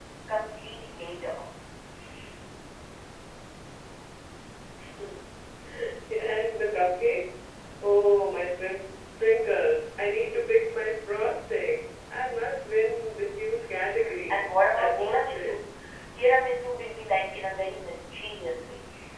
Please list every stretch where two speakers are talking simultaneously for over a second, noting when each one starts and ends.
14.3-15.6

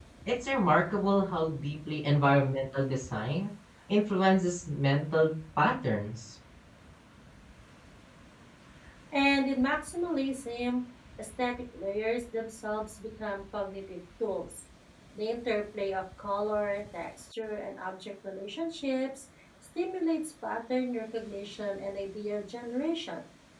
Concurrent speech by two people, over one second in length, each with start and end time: none

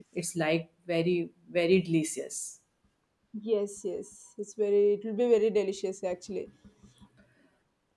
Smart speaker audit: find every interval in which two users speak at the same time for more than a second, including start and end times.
none

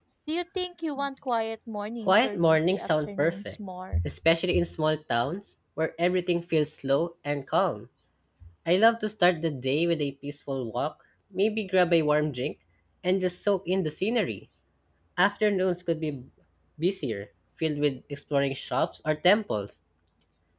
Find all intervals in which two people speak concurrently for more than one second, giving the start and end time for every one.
2.1-3.5

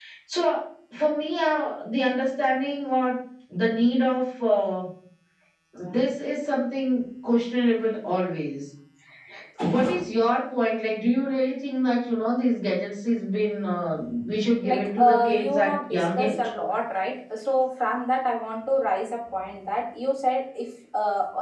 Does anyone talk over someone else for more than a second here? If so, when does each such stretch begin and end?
14.6-16.4

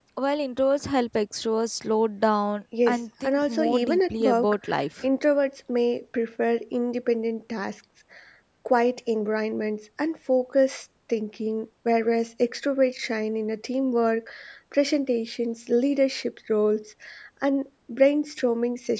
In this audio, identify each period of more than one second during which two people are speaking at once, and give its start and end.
2.9-4.6

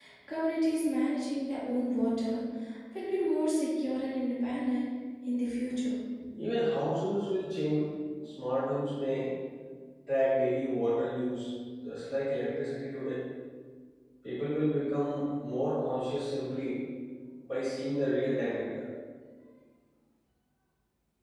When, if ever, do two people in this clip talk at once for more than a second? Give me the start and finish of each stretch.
none

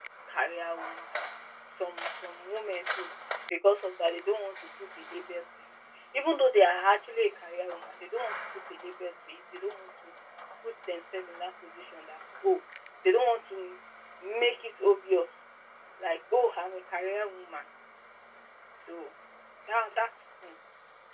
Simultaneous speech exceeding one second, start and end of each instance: none

